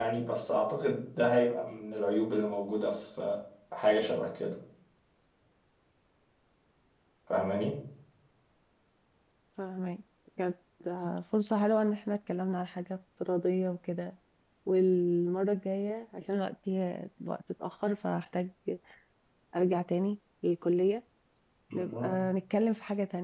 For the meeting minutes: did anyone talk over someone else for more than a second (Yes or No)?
No